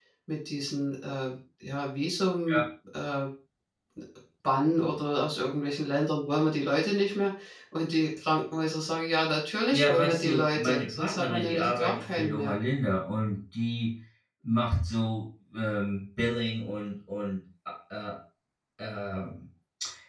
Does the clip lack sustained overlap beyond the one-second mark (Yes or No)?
No